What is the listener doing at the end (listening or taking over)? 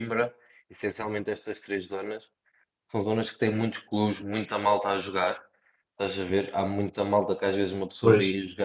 listening